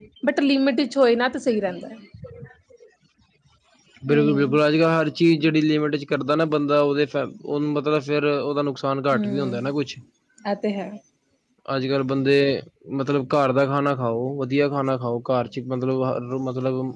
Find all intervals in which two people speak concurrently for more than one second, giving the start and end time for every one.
none

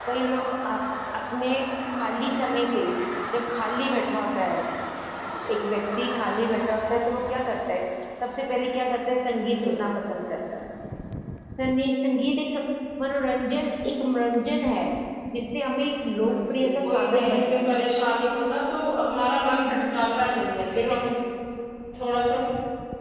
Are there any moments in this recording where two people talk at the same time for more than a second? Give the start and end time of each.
16.2-17.6

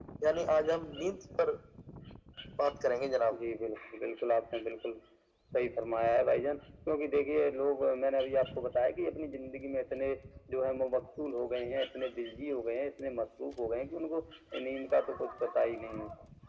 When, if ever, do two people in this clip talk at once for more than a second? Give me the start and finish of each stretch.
none

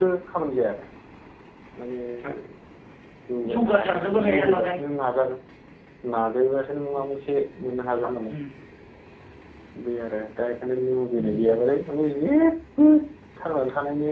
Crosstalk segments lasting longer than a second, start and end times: 3.5-4.8

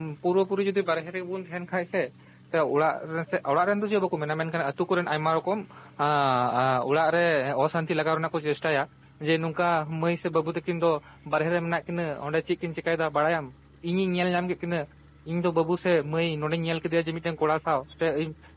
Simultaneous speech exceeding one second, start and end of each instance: none

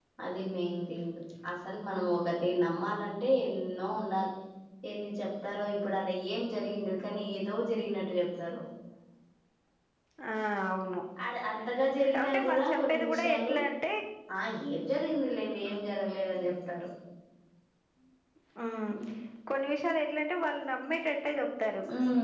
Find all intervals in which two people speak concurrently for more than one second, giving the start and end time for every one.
12.2-13.5

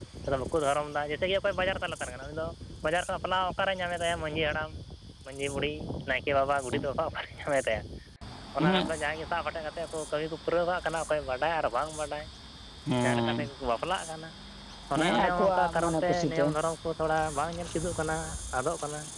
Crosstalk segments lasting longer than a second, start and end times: 15.0-16.4

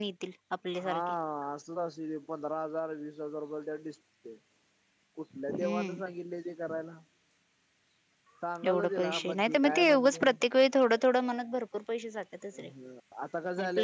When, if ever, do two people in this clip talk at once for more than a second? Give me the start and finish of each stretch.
8.7-10.2

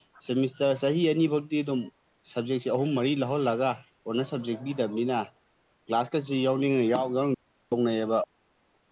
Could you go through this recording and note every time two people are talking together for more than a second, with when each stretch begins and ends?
none

